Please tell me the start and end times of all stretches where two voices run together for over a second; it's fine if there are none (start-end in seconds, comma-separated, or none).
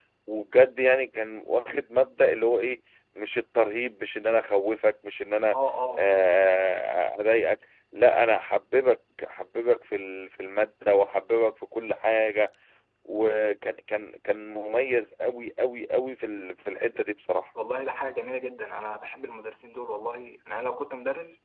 none